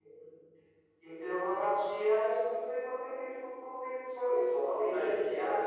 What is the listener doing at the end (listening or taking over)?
listening